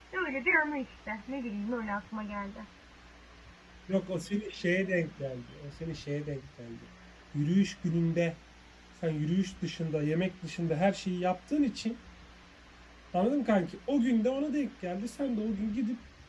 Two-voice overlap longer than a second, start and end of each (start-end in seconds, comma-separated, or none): none